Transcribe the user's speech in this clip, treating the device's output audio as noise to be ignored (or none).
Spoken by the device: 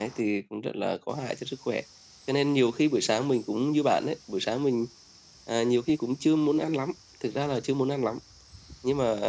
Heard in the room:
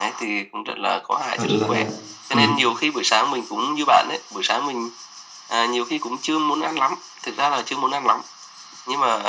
bạn là ừm,